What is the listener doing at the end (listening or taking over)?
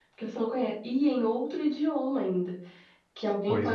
listening